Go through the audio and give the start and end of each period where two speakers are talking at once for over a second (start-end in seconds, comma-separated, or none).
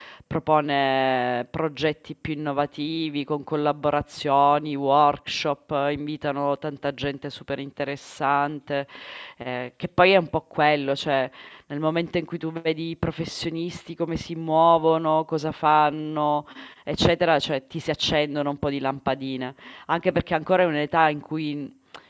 none